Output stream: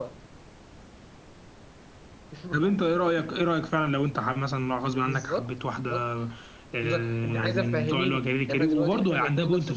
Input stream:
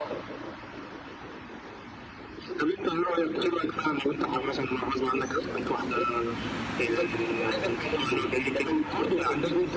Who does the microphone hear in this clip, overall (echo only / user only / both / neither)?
echo only